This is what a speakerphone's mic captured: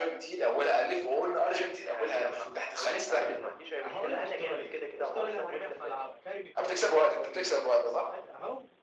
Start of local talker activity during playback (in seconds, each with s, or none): 2.1 s